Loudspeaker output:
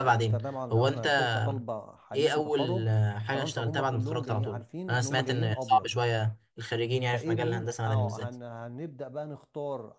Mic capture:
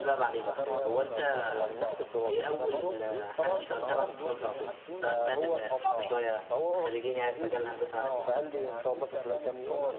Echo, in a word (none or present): present